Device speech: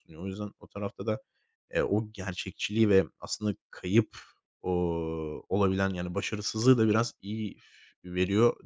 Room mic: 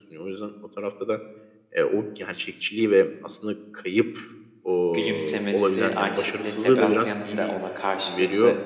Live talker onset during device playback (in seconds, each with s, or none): 4.9 s